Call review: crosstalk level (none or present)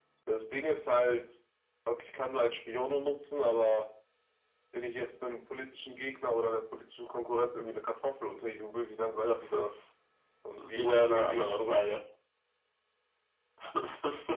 present